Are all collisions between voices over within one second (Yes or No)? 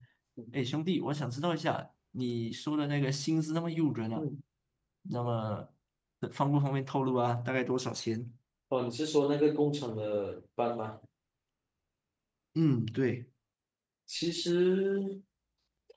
Yes